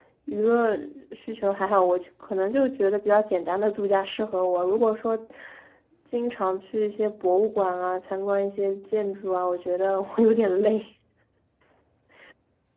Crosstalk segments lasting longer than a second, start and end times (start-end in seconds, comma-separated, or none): none